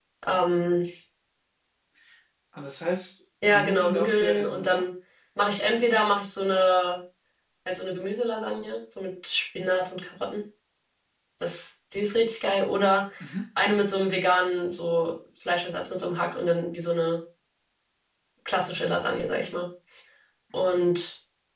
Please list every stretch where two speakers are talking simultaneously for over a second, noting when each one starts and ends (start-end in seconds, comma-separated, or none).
3.5-4.8